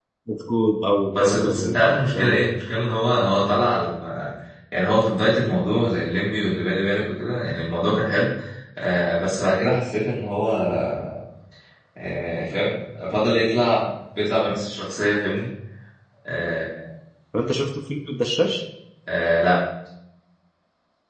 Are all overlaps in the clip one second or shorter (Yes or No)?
No